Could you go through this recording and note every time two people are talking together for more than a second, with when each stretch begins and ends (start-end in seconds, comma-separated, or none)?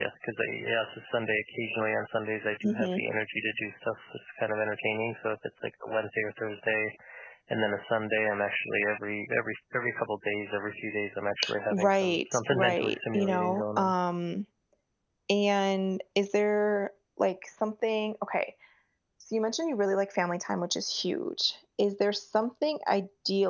11.7-13.9